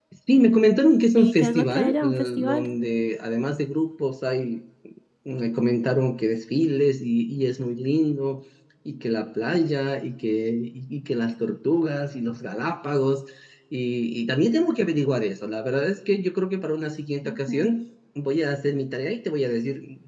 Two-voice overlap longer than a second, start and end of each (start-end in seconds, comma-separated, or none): 1.2-2.7